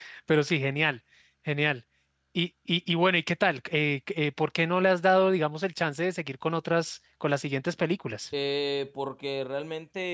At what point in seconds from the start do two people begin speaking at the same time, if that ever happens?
none

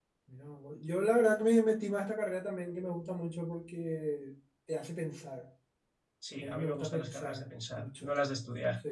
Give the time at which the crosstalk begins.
6 s

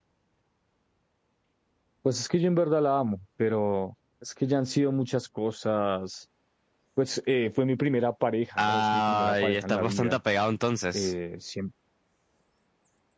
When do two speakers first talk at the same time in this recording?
9 s

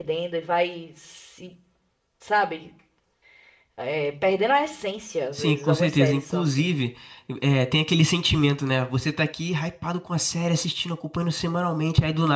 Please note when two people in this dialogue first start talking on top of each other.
5 s

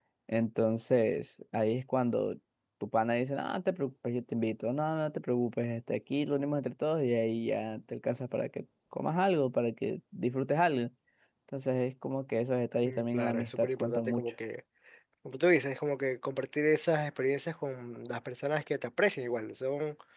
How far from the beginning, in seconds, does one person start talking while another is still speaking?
13 s

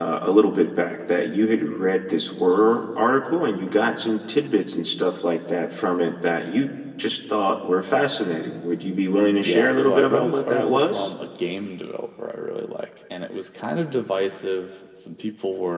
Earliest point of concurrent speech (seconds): 9 s

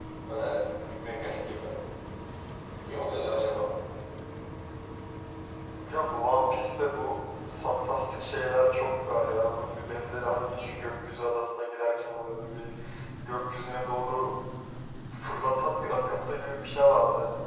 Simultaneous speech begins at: none

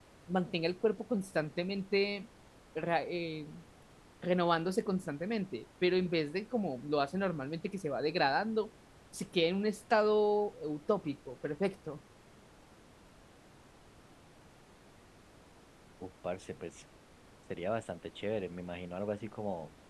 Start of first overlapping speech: none

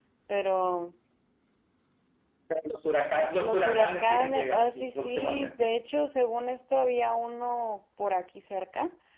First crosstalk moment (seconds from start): 3 s

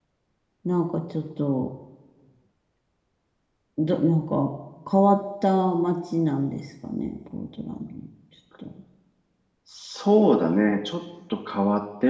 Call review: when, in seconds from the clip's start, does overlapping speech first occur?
none

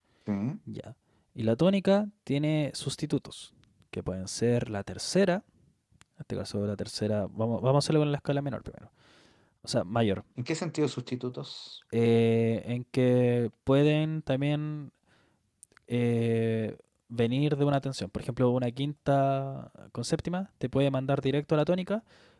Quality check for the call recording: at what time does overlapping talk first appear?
none

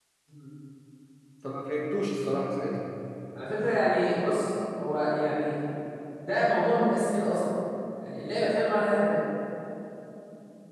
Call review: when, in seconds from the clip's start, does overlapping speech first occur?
none

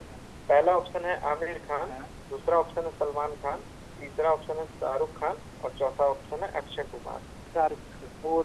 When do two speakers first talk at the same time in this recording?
none

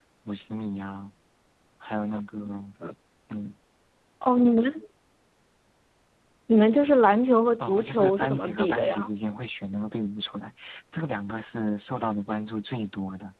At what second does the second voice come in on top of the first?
8 s

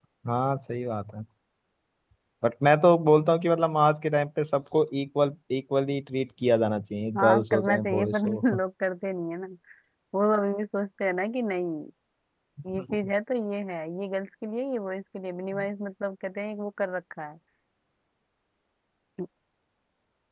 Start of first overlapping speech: 7 s

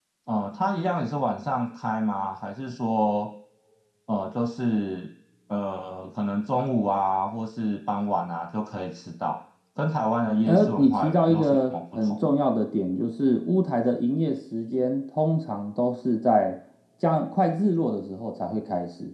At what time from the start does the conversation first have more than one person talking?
10 s

